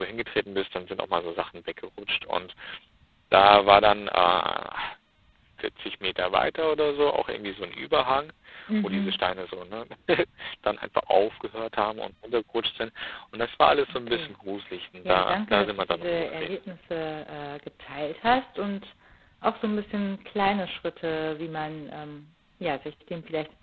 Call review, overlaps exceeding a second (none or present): present